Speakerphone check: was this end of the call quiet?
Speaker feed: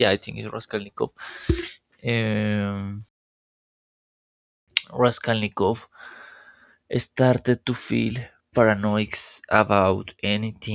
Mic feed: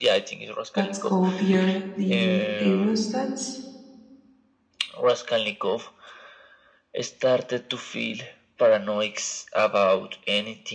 No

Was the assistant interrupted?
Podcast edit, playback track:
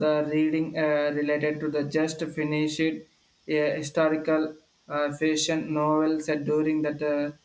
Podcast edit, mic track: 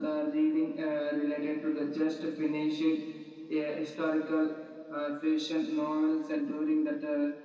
No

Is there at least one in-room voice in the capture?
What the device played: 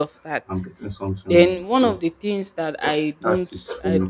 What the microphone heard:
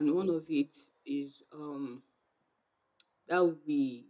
Yes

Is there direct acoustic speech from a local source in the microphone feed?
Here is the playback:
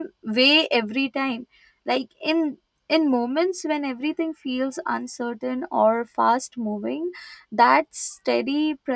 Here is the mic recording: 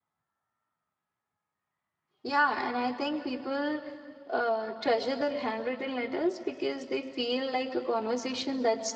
Yes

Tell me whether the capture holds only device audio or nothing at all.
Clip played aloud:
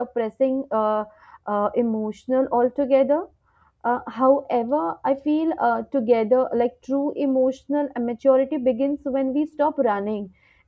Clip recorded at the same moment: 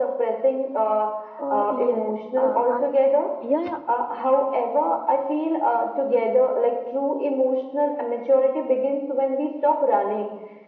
No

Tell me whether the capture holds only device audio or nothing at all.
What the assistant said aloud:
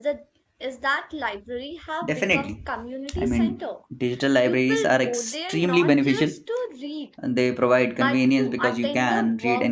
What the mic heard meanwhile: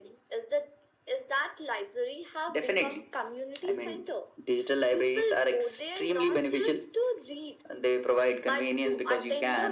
Yes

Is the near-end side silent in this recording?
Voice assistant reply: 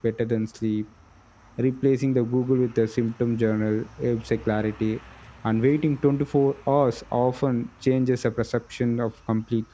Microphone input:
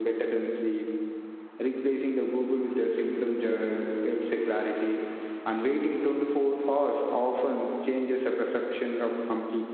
Yes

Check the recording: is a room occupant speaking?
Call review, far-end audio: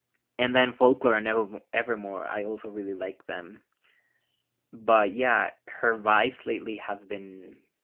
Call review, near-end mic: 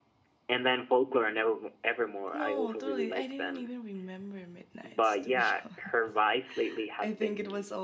Yes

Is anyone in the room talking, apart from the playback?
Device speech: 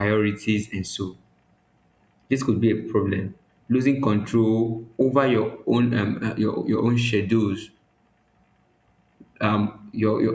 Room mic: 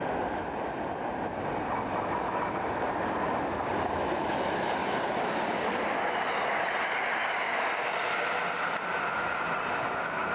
No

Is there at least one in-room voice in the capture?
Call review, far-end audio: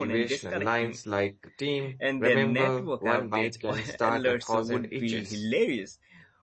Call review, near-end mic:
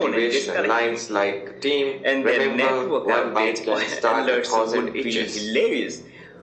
No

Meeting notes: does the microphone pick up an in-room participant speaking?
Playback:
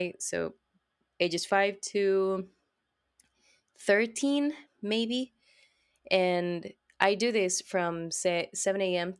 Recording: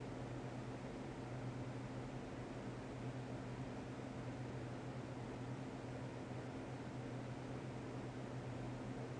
No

